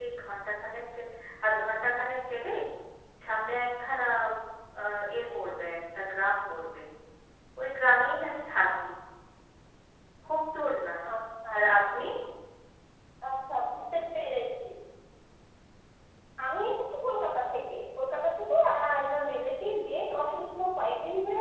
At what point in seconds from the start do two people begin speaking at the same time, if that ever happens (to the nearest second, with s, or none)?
none